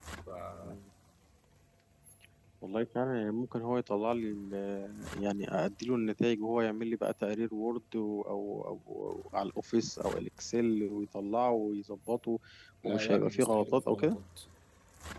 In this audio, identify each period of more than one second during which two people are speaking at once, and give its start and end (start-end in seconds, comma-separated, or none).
12.8-14.2